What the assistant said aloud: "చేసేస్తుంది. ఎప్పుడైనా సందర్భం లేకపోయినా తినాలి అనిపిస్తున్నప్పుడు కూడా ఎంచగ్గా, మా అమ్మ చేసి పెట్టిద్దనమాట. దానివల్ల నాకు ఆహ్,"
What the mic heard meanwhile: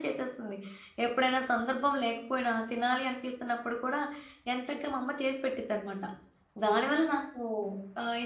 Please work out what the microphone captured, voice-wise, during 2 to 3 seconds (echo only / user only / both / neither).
echo only